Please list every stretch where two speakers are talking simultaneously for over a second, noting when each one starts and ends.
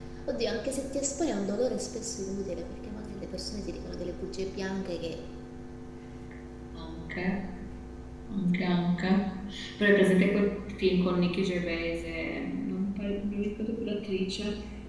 none

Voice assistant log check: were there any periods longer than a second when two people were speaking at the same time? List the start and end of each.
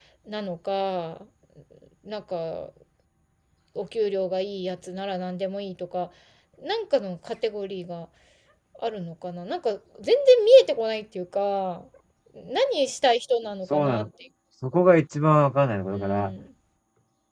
none

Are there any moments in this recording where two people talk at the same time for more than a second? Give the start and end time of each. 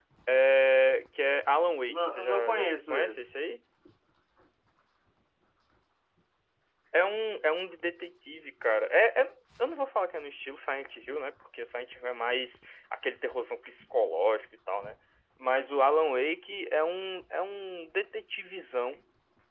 1.9-3.4

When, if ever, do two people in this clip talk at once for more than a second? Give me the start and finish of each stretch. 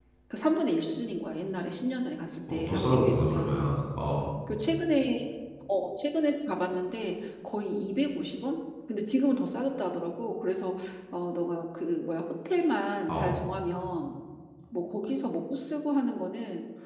2.5-3.7

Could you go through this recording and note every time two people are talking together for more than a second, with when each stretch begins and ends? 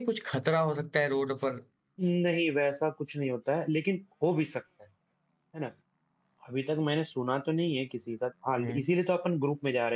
none

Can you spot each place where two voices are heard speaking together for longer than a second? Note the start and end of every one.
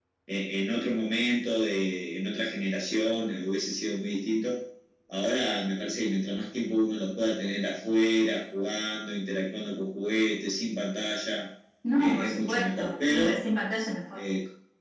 12.0-13.4

